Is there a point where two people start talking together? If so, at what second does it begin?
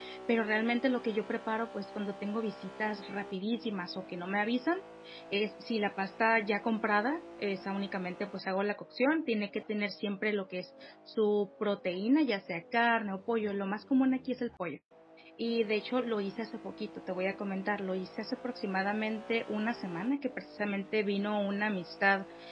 none

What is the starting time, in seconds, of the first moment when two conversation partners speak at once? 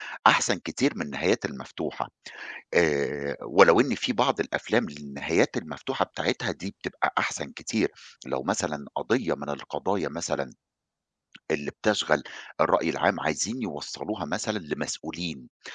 none

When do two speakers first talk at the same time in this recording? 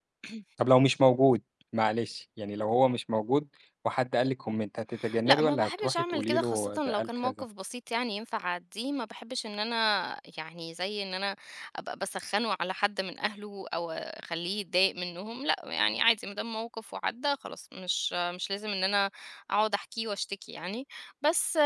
5.3 s

